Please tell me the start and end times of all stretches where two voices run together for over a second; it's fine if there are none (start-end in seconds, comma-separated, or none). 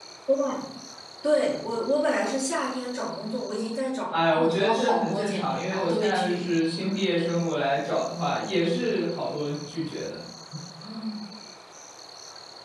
4.1-6.5